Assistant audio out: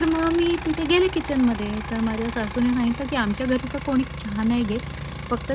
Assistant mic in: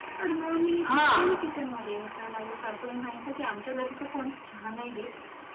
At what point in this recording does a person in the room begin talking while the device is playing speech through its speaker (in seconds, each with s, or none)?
0.9 s